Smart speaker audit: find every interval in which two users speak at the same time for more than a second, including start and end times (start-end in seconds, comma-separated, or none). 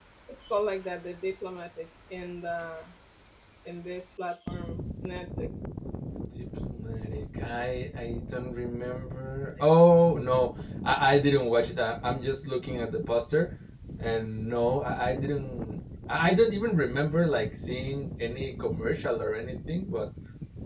none